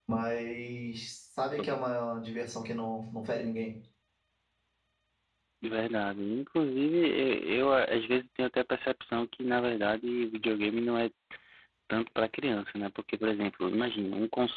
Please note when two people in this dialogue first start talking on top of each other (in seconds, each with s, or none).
none